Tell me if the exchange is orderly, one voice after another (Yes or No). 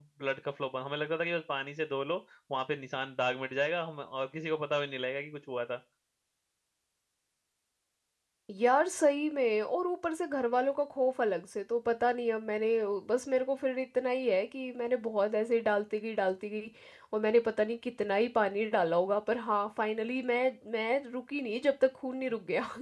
Yes